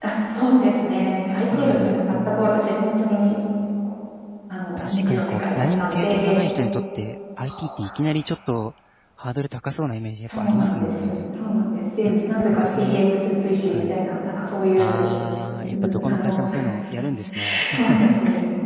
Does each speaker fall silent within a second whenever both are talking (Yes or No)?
No